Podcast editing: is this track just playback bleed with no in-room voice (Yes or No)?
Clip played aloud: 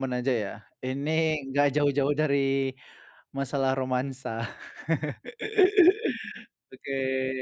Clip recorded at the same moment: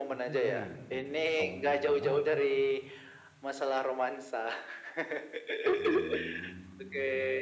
No